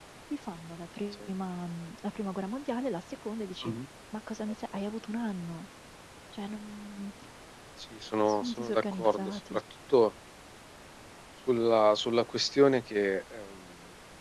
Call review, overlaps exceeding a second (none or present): present